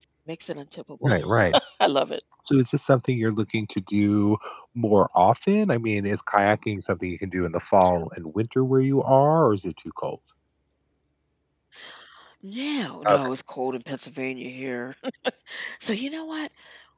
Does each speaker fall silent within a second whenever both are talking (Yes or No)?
Yes